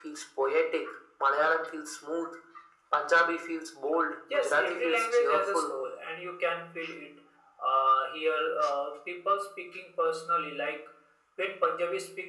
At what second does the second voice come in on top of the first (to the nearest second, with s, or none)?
4 s